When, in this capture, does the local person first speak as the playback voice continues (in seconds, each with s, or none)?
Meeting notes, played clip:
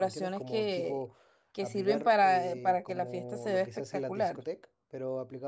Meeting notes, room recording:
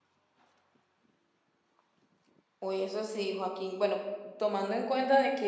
2.6 s